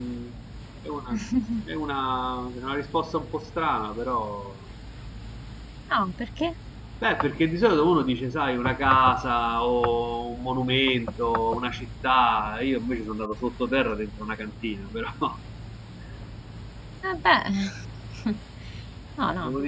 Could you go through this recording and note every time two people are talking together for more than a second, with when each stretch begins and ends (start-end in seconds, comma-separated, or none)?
none